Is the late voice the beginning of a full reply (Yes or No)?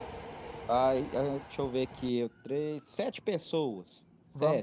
Yes